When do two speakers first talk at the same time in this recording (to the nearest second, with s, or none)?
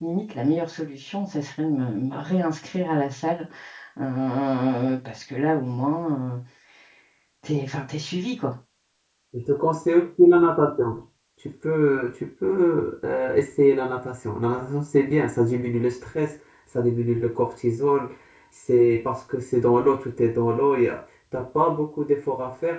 none